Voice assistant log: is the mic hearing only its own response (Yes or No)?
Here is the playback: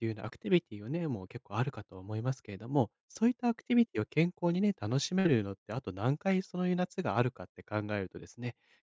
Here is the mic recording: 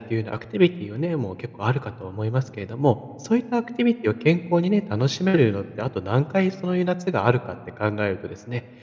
Yes